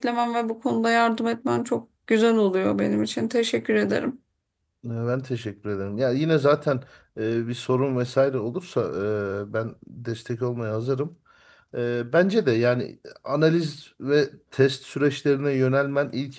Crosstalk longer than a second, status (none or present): none